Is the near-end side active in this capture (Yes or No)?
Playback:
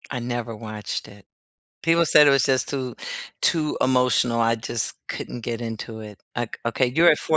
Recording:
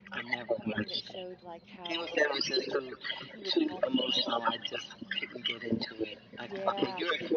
Yes